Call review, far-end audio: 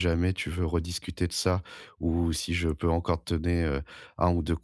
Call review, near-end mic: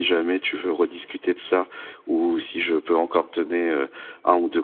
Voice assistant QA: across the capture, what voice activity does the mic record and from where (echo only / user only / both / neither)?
echo only